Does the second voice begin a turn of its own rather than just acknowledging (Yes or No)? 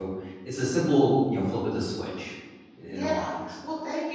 Yes